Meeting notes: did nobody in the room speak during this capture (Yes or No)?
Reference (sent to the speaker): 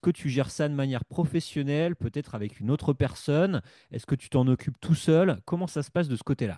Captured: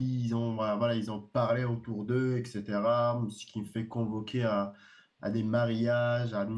No